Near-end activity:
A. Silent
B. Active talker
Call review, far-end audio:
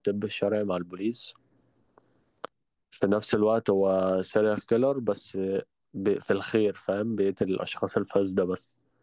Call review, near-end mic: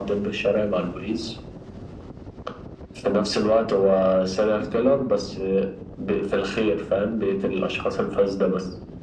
A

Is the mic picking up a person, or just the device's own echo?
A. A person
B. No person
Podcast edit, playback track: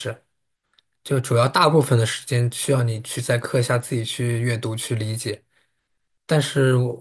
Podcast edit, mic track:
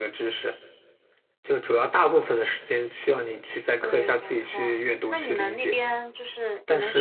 A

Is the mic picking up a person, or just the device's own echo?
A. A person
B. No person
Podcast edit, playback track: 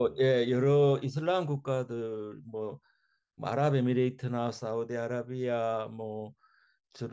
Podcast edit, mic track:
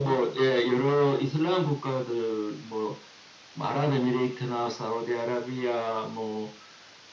B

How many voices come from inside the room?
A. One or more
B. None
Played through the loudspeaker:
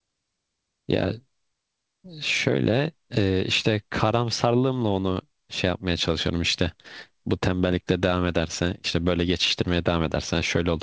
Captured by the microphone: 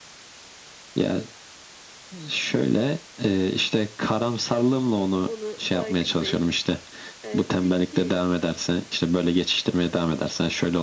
A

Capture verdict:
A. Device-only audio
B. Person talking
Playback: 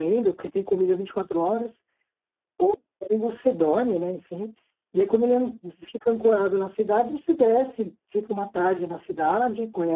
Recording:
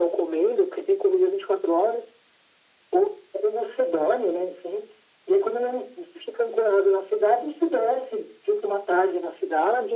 A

